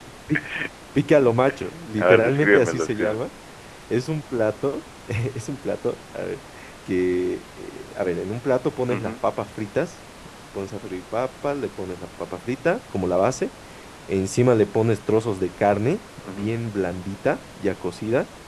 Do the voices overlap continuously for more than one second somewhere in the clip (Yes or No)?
Yes